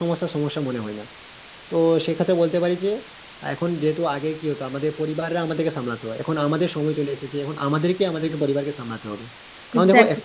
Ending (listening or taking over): listening